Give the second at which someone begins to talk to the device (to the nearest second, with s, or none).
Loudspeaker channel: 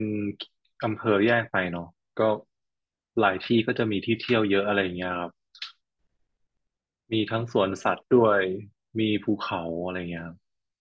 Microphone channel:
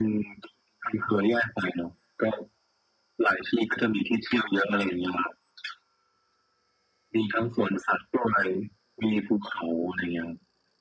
none